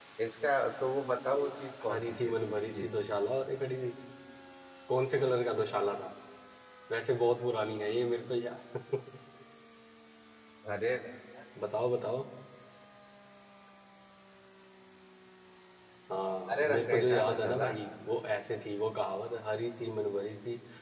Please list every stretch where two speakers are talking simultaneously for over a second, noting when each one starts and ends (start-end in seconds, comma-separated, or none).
1.3-2.9, 16.5-17.7